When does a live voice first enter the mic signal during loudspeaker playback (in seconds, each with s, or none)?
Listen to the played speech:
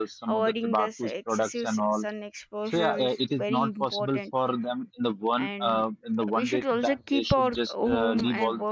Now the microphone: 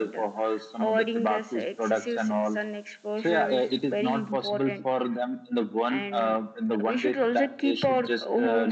none